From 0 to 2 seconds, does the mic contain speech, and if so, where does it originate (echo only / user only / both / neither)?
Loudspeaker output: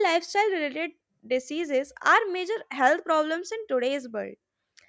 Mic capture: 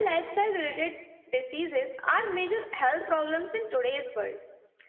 echo only